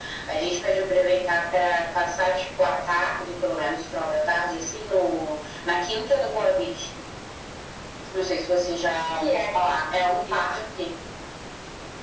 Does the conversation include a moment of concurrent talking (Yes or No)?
Yes